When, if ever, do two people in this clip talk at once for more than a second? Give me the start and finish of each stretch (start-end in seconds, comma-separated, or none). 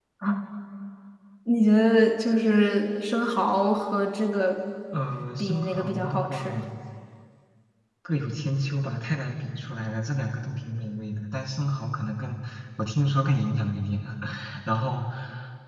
5.4-6.6